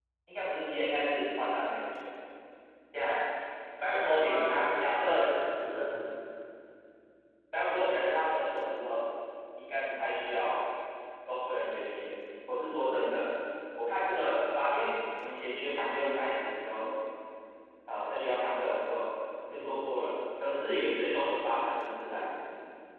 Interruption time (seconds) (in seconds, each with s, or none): 3.9 s